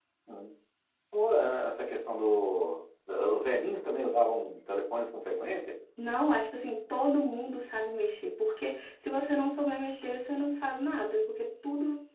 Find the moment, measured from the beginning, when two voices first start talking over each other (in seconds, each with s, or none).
none